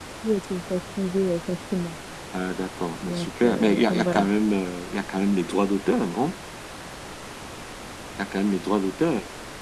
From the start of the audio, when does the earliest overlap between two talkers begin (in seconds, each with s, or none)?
3.0 s